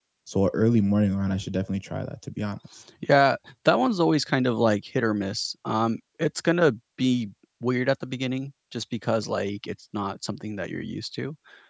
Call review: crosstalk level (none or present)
none